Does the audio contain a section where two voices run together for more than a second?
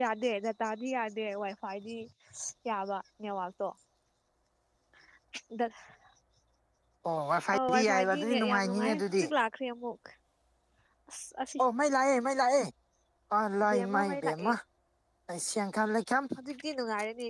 Yes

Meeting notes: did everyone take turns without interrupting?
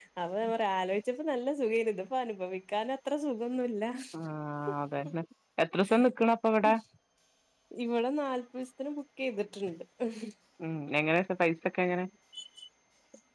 Yes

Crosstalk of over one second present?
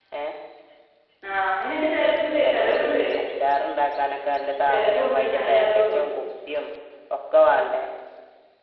Yes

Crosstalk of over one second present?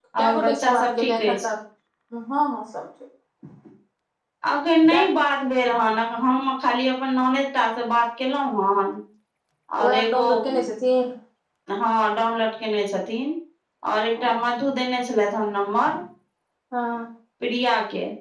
Yes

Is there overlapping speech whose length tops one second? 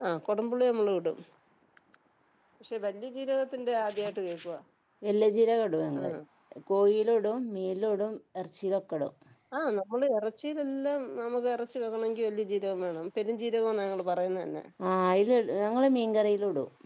No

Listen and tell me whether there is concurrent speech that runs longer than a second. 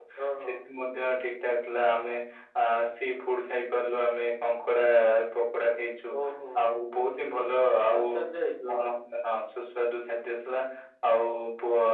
No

